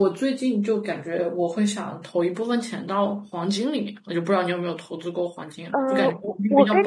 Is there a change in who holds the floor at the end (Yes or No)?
Yes